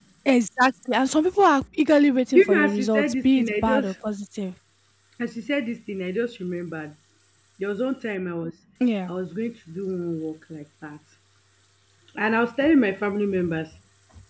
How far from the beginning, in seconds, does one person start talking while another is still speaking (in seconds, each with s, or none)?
2.3 s